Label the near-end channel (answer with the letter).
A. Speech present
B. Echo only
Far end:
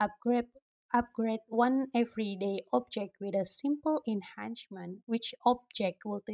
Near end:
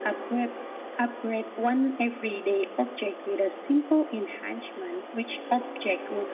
B